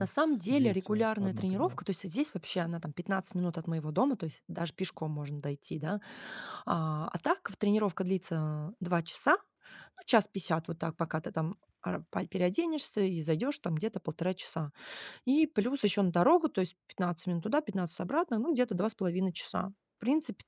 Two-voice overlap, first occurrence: 0.5 s

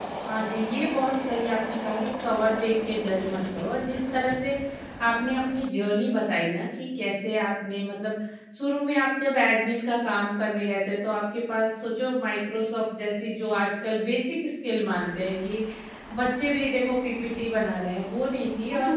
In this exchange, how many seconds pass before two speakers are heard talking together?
none

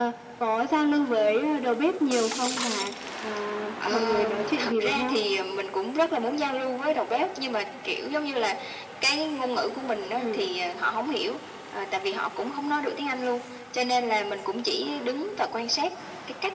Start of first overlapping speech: 3.9 s

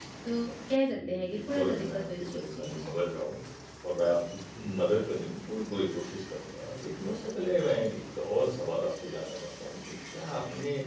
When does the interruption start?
0.9 s

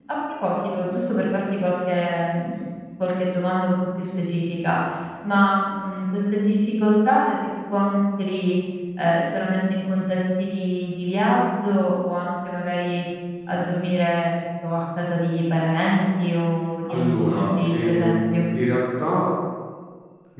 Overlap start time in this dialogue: 16.9 s

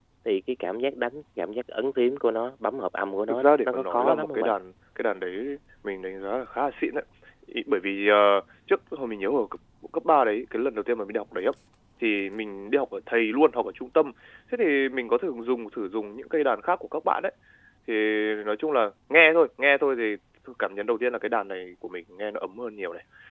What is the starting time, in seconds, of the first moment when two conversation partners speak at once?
3.3 s

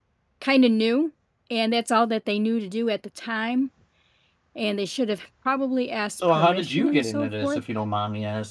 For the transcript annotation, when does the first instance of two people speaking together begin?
6.2 s

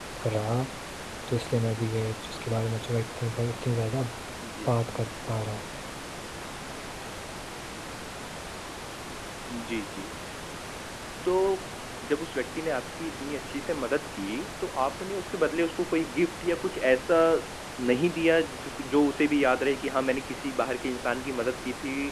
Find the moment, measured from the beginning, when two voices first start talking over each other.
none

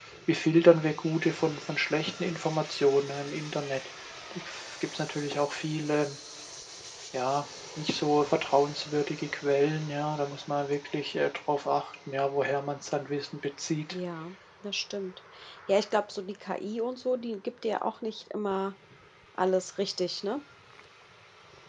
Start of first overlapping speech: none

